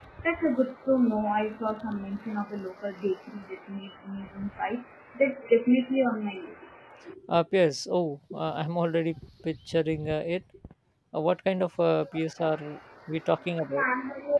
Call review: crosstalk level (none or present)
none